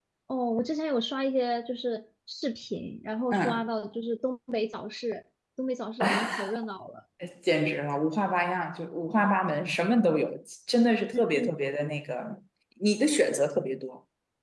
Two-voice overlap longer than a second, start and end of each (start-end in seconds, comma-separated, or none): none